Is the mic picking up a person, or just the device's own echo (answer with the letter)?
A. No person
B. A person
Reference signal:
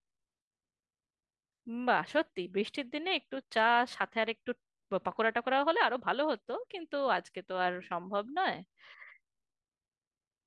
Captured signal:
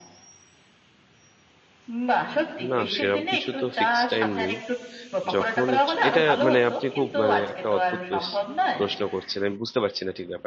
B